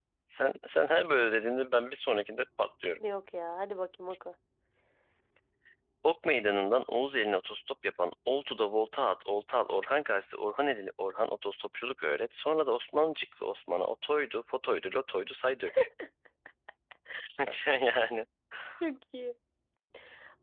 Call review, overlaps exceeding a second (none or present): none